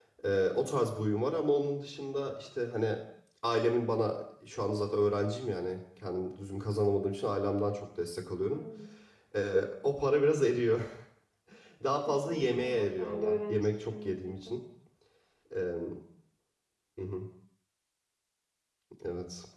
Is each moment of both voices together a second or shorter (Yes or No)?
No